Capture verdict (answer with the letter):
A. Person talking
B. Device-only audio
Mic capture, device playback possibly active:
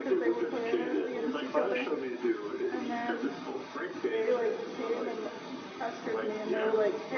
A